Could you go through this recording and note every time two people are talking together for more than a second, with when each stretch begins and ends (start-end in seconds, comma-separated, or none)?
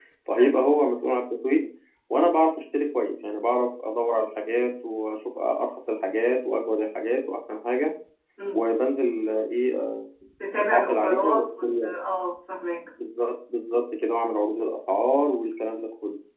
10.6-11.9